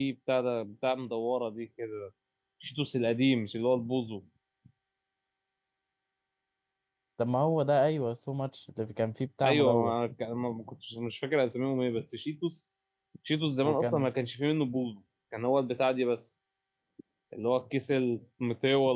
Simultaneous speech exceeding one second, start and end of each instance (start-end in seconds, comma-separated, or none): none